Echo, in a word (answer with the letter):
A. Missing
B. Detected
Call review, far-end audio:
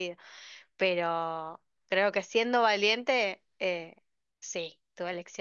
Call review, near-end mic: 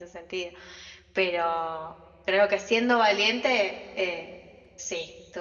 B